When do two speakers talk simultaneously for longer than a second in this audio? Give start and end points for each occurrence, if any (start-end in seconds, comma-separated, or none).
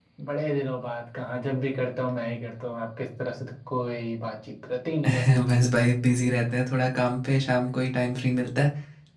none